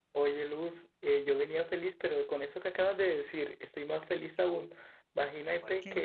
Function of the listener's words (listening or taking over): listening